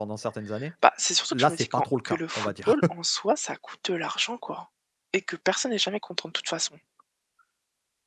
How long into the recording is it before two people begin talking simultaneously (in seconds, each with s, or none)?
1.3 s